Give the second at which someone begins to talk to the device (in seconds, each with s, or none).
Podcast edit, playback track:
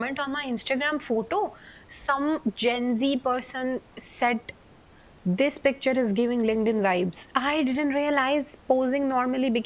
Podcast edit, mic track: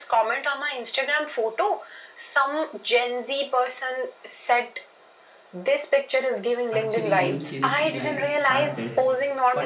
6.8 s